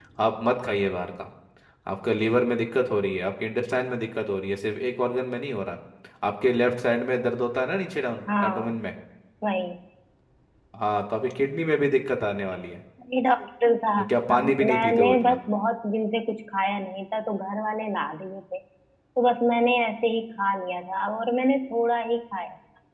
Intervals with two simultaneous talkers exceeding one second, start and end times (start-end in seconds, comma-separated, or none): 14.0-15.4